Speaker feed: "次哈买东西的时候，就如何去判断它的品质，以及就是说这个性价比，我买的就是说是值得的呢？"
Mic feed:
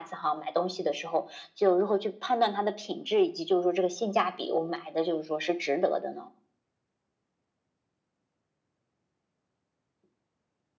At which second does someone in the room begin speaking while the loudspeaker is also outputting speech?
none

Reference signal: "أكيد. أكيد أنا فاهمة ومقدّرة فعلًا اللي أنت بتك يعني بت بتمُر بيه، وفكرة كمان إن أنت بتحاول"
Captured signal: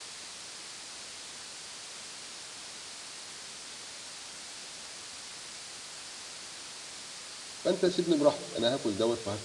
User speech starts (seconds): 7.6 s

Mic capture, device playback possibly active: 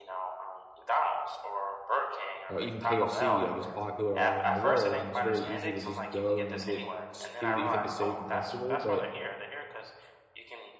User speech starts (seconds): 2.5 s

